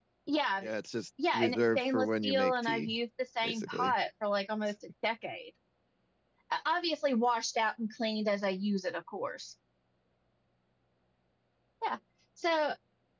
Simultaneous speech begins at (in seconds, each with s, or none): 1.3 s